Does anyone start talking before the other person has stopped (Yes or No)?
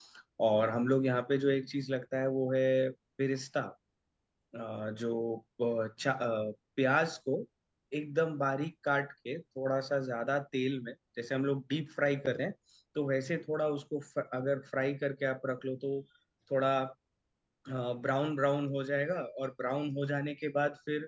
No